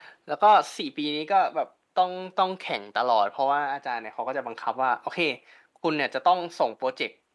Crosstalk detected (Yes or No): No